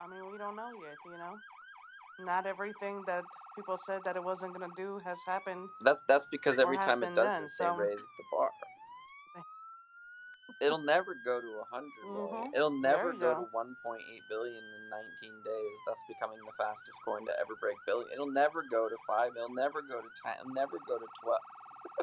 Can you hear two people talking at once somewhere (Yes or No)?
Yes